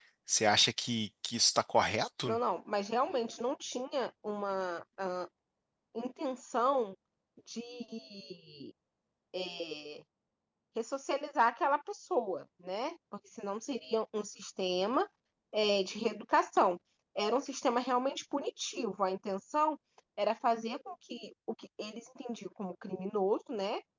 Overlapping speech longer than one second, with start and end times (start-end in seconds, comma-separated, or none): none